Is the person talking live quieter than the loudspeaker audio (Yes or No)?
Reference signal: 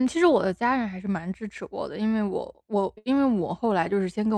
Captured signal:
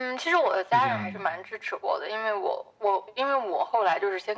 Yes